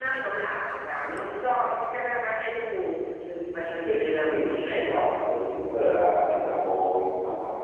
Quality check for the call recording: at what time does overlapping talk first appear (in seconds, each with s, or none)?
3.8 s